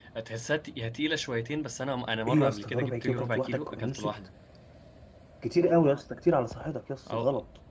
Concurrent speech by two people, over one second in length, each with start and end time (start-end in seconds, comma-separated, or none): 2.3-4.1